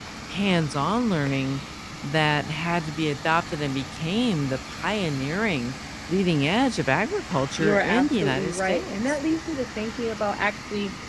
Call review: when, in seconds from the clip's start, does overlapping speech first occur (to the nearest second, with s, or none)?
8 s